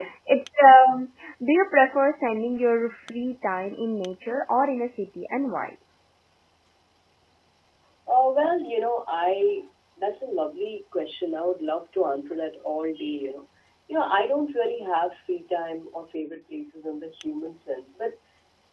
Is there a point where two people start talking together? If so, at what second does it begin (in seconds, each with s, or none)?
none